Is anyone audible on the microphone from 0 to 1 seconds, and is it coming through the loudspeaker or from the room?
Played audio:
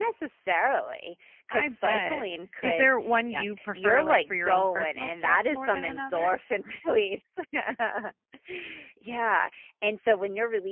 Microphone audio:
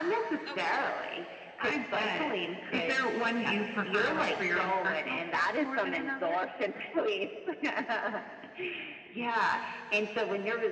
both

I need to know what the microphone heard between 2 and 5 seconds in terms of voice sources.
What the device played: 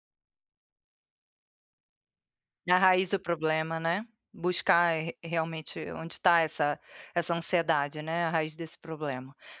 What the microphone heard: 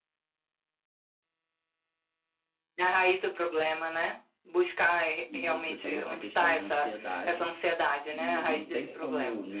echo only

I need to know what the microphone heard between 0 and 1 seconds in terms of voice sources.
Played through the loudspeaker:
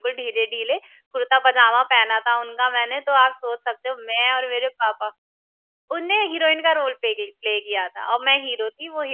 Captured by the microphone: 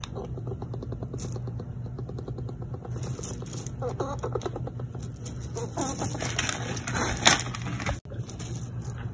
neither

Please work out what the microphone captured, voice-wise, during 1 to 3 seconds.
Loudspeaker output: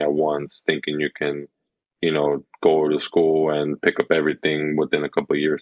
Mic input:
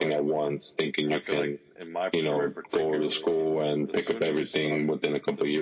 both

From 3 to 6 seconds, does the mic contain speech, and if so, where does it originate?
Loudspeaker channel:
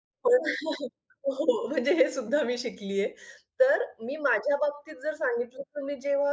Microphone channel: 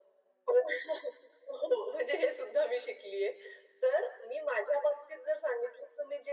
echo only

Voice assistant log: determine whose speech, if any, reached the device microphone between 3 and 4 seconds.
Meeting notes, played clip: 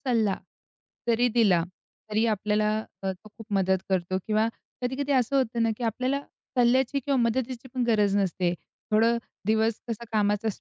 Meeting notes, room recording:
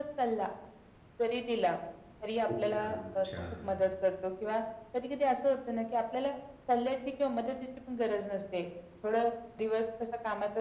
both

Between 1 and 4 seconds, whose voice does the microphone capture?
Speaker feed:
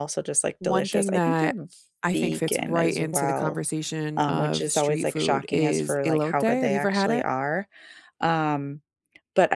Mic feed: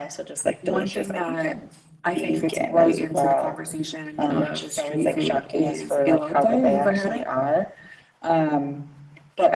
echo only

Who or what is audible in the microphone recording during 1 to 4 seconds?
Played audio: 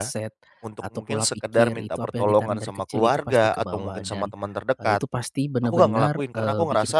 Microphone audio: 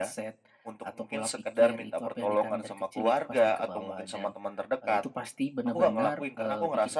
echo only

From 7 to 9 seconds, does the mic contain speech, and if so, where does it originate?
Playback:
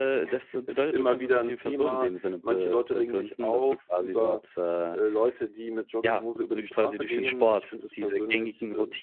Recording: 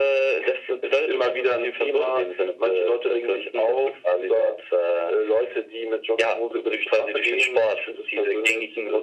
echo only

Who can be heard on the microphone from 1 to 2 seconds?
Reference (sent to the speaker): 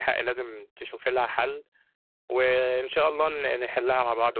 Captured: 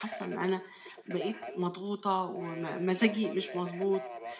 both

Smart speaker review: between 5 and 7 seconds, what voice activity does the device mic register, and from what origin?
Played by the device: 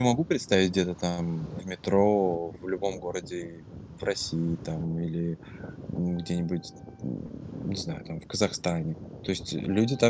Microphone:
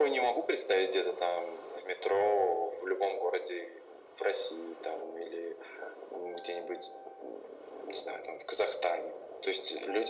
echo only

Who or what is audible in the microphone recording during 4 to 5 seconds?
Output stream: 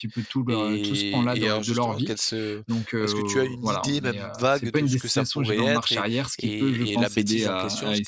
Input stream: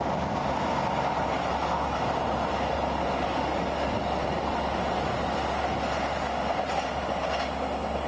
neither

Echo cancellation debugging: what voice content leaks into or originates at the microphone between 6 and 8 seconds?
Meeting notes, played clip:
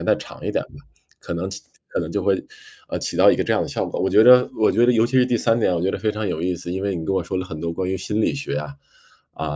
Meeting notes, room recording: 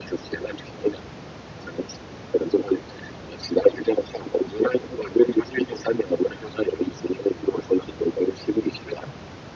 echo only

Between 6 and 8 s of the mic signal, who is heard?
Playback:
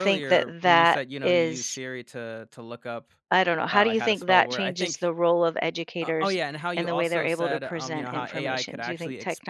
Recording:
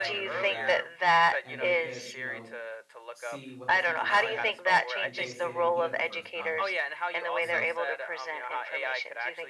both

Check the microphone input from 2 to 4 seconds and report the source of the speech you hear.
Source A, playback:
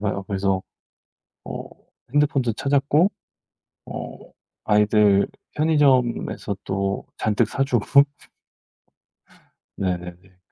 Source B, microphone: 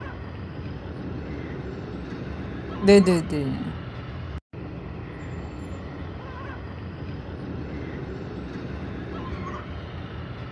user only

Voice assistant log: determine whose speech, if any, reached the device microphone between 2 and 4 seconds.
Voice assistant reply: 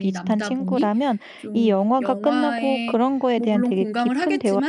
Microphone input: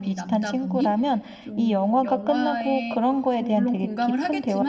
echo only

